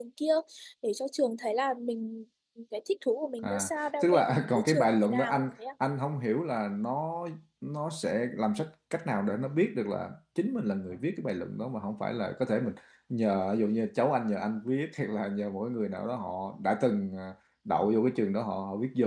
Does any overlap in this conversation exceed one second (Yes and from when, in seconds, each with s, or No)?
Yes, from 3.4 s